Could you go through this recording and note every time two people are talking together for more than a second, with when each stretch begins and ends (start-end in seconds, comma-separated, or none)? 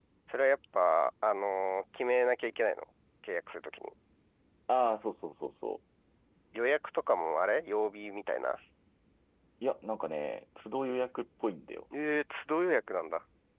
none